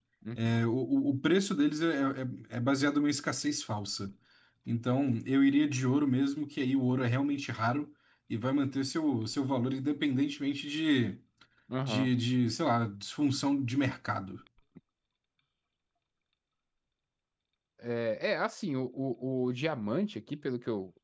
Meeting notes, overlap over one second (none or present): none